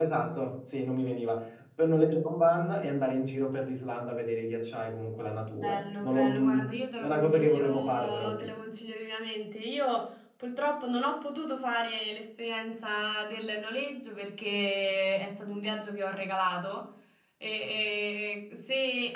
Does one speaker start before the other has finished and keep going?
Yes, from 5.6 s

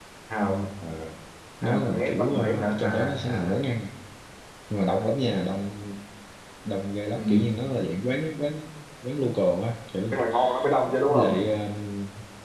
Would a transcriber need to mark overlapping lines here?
Yes, from 1.6 s

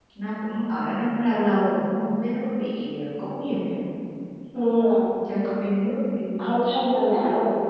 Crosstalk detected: No

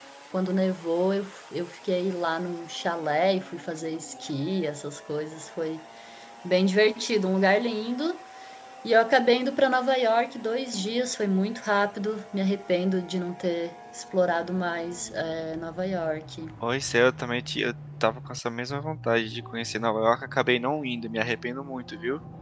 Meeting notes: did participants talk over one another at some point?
No

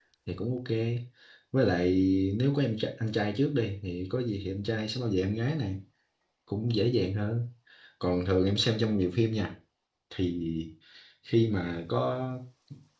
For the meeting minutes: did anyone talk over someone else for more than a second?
No

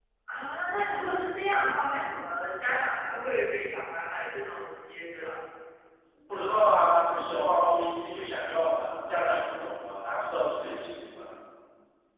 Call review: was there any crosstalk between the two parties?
No

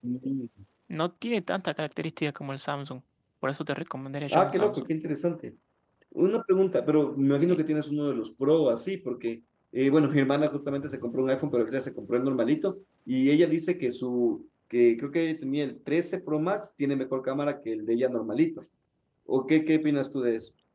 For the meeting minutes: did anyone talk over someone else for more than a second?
No

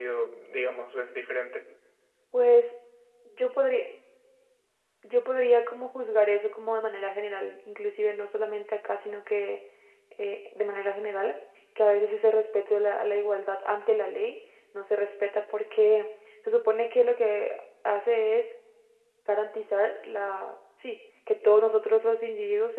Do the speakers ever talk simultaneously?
No

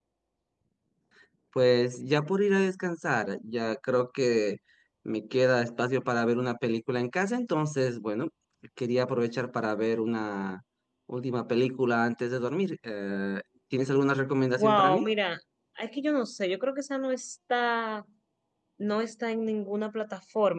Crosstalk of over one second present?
No

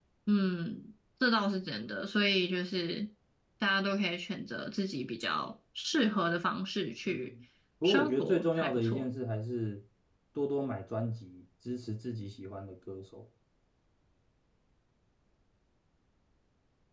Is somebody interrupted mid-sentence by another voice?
Yes, from 7.8 s

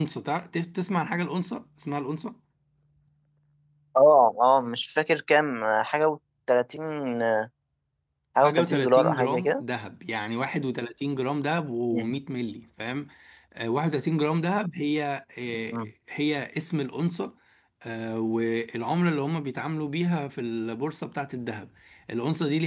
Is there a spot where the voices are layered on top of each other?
Yes, from 8.4 s

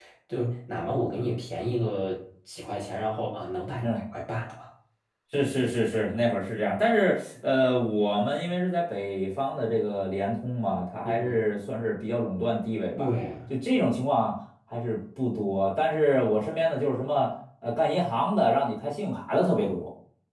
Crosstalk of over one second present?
No

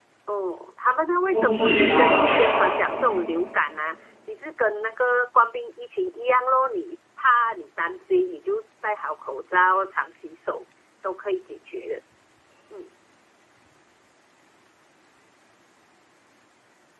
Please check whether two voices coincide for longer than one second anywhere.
Yes, from 1.3 s

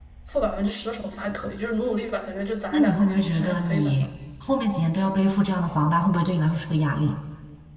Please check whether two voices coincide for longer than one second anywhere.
Yes, from 2.7 s

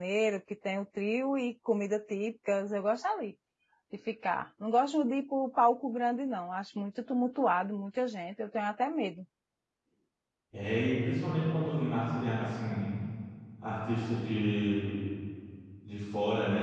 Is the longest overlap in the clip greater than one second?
No

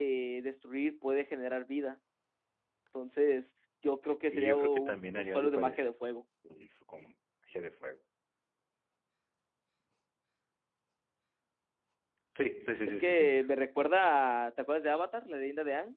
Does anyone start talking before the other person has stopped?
Yes, from 4.3 s

